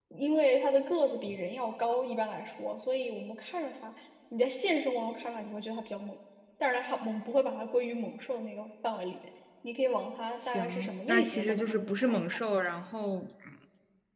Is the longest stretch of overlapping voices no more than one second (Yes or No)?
No